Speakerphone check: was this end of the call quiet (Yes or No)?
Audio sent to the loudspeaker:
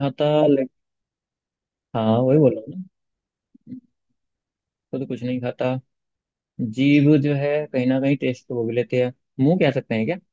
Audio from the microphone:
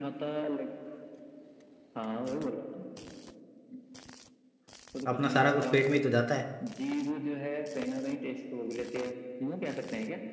No